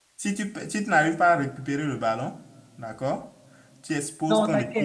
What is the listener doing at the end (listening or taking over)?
taking over